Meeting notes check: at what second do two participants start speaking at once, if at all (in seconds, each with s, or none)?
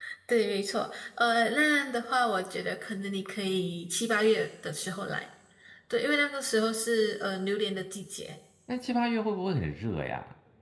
none